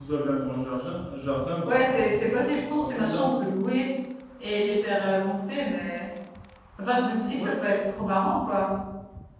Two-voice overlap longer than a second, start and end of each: 1.6-3.4

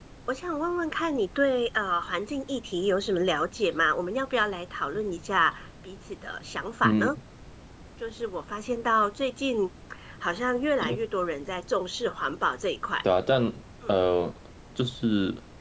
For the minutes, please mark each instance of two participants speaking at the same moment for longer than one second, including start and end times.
none

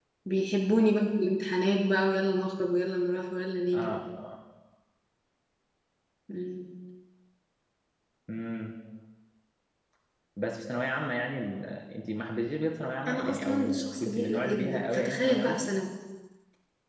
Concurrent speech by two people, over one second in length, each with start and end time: 13.1-15.6

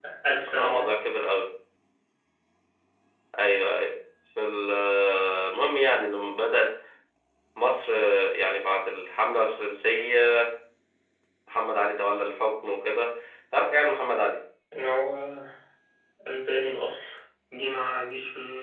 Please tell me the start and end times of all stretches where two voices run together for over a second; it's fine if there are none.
none

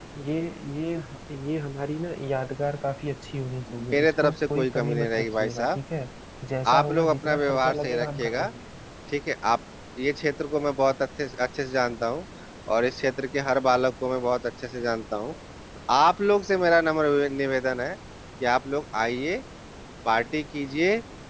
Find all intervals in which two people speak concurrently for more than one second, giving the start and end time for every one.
3.9-5.8, 6.7-8.5

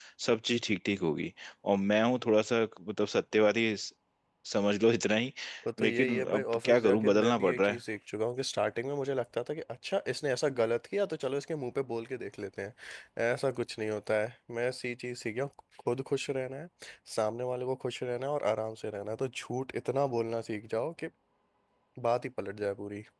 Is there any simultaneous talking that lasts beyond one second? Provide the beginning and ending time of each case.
5.8-7.8

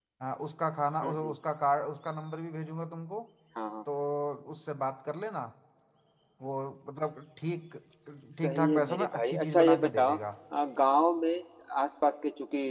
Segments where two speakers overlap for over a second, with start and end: 8.4-10.2

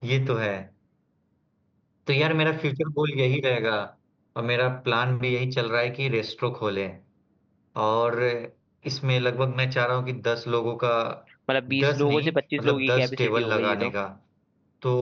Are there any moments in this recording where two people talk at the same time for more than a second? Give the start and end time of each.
11.8-13.9

